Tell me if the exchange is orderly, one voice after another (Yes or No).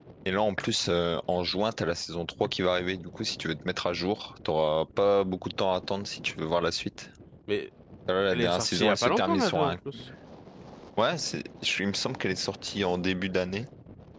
No